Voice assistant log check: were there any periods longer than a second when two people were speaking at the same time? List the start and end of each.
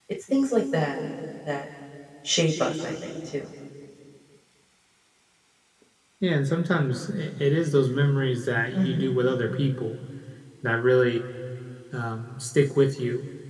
none

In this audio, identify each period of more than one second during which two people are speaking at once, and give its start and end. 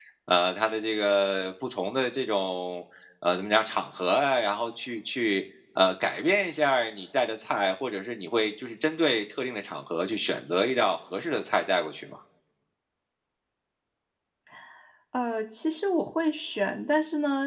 none

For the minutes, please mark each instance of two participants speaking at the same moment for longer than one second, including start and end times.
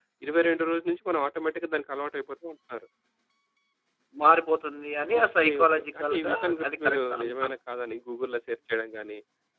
5.2-7.5

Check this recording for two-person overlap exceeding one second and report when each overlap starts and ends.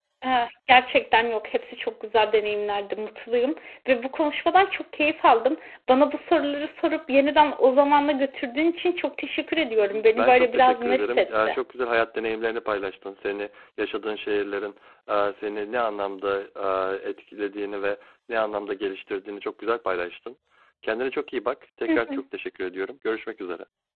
9.8-11.6

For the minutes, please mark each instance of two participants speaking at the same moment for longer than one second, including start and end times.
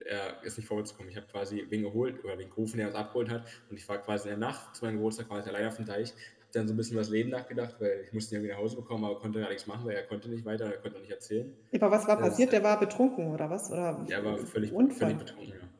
14.0-15.2

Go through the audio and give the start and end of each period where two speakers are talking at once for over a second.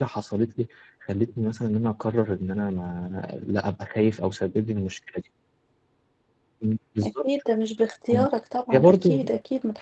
none

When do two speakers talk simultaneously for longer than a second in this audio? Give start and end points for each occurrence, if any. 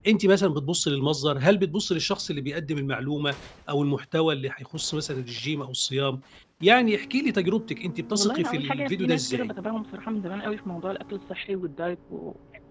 8.1-9.5

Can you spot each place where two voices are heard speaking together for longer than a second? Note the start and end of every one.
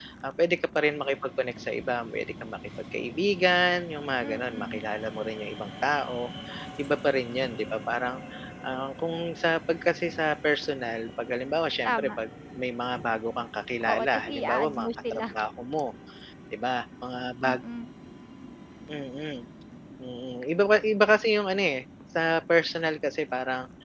13.8-15.3

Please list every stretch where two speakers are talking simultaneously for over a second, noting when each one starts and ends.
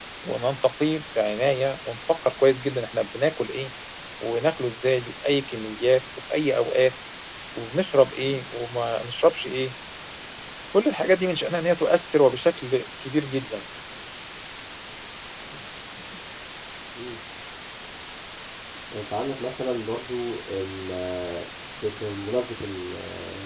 none

